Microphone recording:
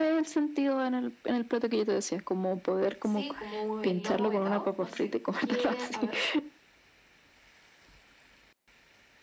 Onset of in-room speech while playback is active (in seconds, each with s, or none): 3.0 s